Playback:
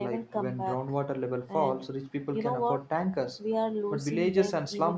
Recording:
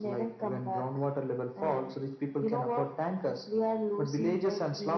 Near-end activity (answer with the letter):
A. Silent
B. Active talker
A